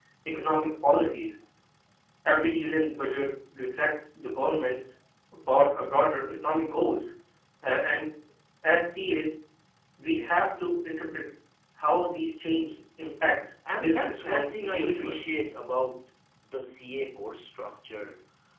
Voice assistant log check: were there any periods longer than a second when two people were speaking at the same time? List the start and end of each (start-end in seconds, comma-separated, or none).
13.8-15.3